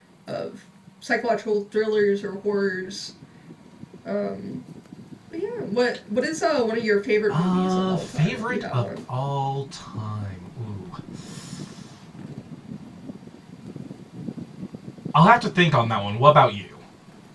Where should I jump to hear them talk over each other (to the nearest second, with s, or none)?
7 s